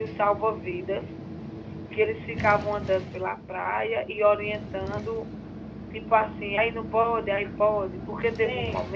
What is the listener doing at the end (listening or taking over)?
taking over